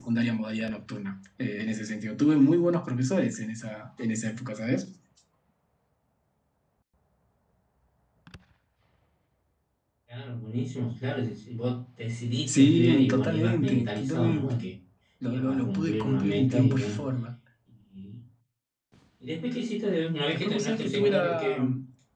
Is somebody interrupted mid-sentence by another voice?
Yes, from 12.5 s

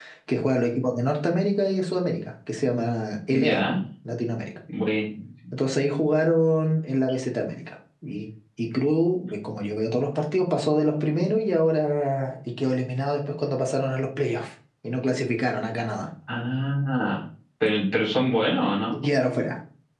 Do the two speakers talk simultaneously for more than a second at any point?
No

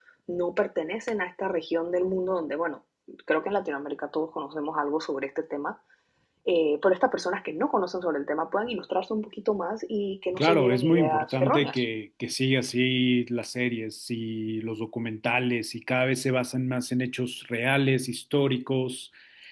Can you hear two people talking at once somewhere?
Yes, from 10.3 s

